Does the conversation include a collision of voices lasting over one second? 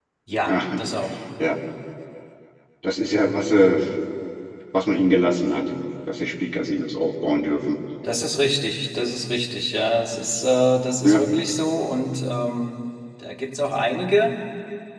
No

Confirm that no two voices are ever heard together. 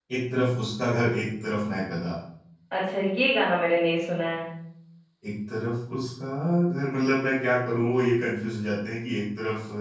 Yes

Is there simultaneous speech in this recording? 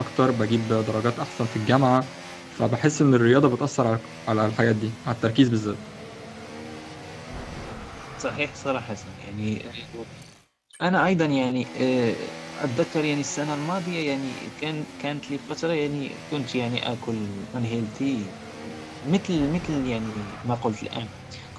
No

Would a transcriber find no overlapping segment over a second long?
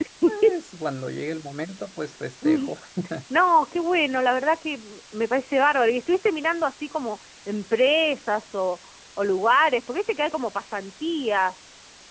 Yes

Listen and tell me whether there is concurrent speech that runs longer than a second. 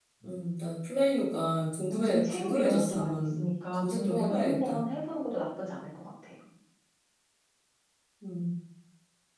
Yes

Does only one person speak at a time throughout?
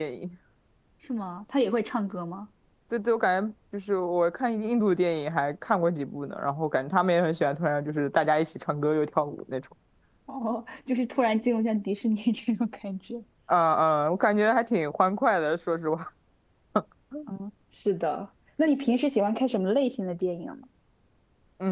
Yes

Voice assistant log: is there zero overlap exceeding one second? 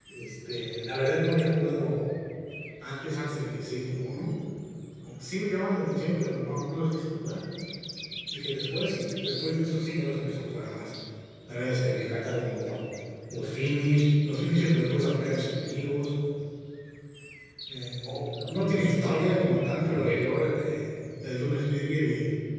No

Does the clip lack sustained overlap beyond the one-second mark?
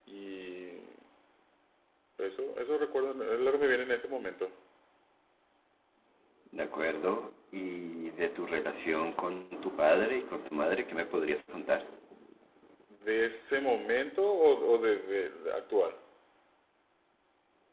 Yes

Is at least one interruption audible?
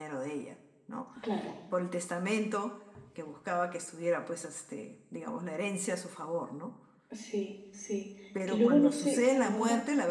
Yes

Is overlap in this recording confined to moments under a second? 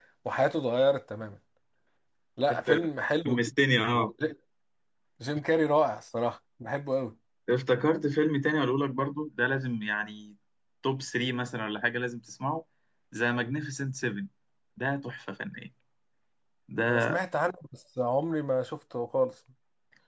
Yes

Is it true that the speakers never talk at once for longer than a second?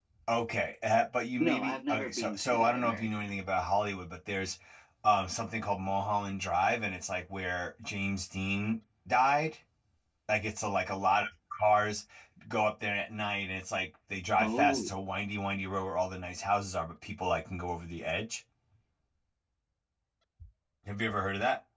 No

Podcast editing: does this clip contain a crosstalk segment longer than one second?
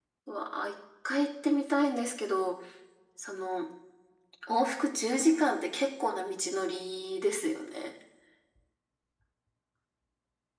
No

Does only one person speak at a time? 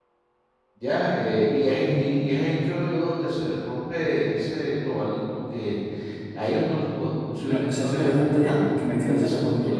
No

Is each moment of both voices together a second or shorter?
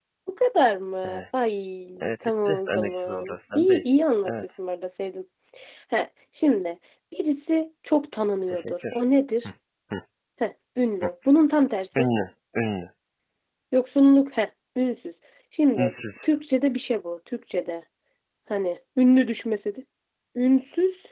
No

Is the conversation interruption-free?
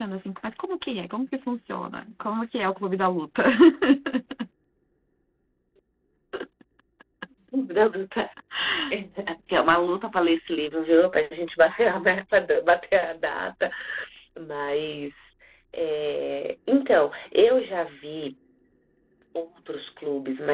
Yes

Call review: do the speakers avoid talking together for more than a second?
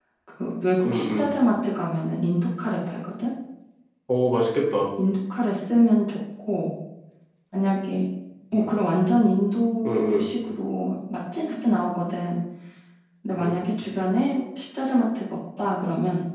Yes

